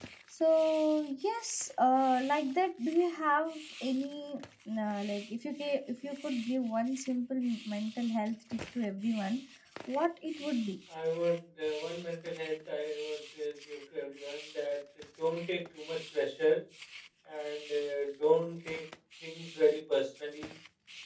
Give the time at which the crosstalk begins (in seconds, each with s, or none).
none